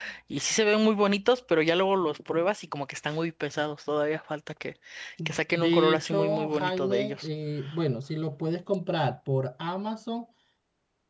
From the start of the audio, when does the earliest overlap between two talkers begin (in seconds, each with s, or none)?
5.5 s